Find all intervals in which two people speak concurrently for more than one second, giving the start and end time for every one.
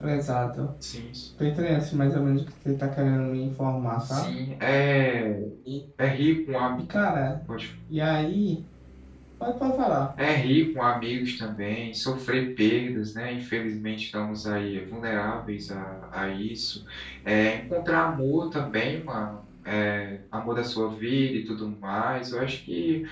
none

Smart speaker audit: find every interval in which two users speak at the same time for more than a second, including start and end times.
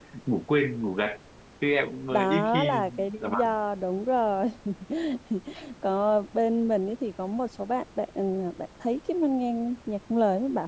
2.1-3.6

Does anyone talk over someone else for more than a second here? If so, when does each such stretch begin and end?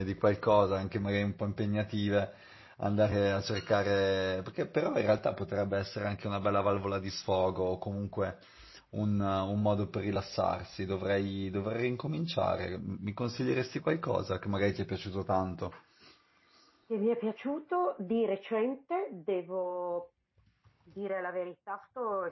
none

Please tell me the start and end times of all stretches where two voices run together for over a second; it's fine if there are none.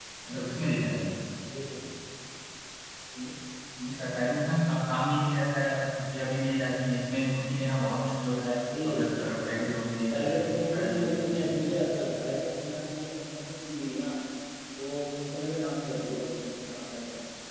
10.1-11.6

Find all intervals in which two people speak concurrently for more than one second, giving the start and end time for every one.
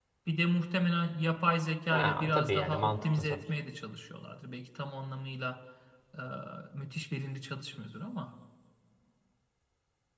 1.9-3.4

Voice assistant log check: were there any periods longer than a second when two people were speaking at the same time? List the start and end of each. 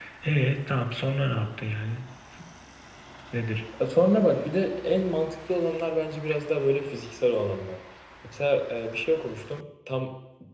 none

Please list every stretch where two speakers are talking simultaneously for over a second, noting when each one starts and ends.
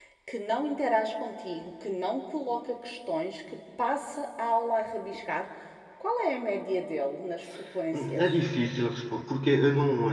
none

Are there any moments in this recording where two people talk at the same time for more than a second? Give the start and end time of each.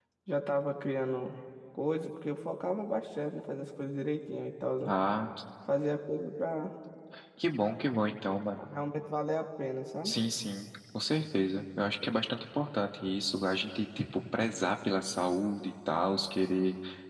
none

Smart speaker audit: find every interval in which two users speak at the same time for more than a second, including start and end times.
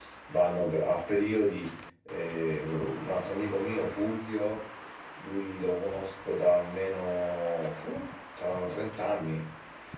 none

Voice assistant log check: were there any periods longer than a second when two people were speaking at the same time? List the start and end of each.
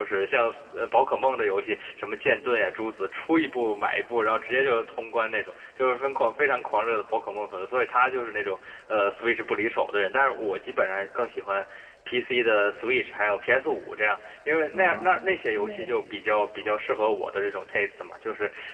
14.7-16.2

